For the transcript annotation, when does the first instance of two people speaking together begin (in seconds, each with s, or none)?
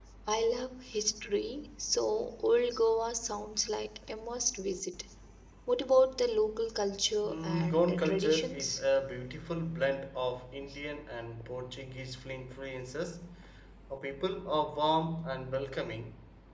7.2 s